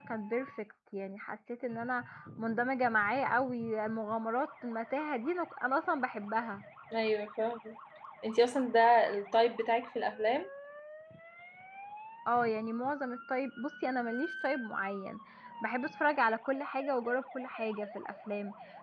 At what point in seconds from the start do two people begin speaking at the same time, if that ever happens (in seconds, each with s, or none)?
none